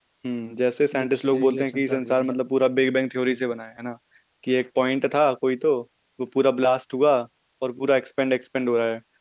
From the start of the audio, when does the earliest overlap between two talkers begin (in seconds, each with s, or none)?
1.0 s